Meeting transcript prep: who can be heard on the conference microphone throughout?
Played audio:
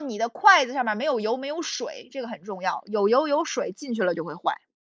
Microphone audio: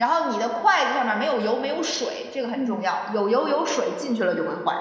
both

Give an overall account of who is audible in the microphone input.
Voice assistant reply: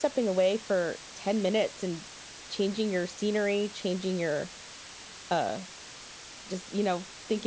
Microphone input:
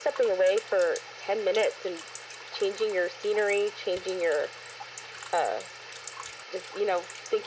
echo only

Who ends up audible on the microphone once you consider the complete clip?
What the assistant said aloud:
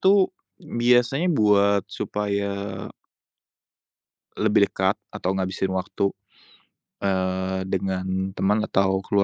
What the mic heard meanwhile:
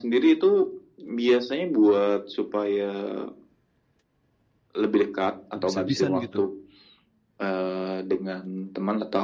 both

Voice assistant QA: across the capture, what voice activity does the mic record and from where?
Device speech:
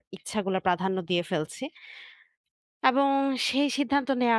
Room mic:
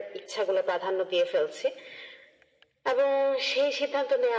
echo only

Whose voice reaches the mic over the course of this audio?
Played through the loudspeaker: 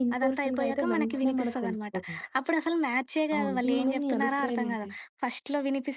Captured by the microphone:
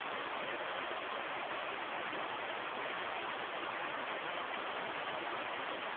neither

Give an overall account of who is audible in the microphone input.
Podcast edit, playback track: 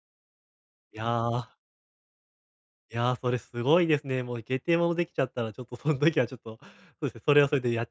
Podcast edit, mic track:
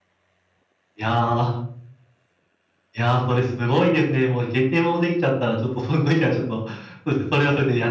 echo only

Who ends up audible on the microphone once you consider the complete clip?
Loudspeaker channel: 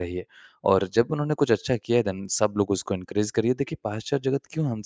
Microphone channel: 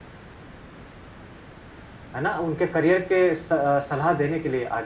user only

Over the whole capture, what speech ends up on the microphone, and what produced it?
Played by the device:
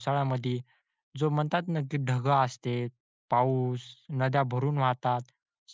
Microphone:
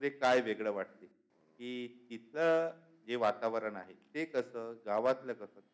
user only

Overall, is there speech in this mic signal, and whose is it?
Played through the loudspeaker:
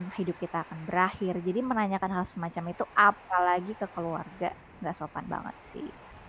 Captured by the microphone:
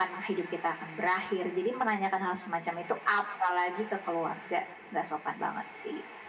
echo only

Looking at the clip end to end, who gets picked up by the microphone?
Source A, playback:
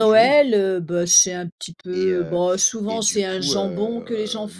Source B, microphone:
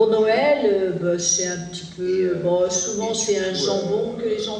echo only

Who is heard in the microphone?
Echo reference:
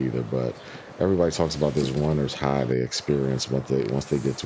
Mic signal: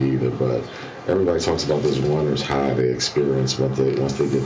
echo only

